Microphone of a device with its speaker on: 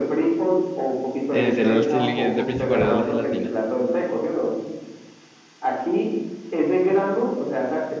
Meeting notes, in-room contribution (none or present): present